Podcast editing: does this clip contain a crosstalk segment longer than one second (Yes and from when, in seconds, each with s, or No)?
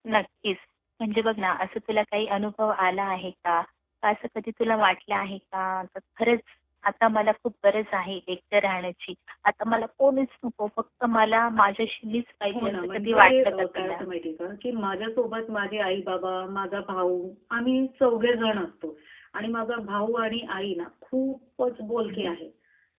Yes, from 12.5 s